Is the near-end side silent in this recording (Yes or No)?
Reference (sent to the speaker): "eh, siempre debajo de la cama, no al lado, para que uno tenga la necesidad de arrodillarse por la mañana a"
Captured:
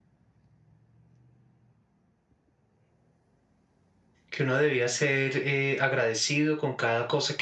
No